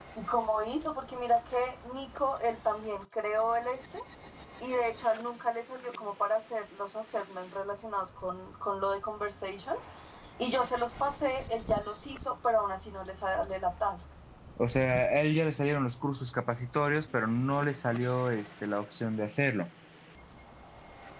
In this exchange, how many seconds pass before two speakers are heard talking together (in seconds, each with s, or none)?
none